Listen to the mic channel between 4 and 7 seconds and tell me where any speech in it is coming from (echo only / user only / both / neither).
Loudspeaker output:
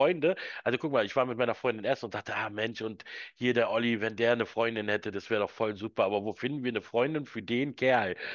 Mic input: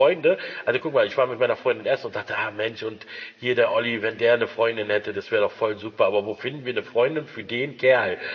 echo only